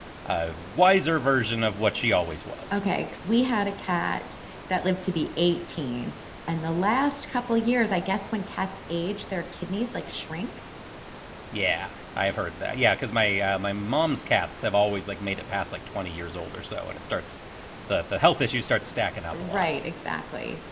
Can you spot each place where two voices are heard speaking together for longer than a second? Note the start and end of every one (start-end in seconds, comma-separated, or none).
none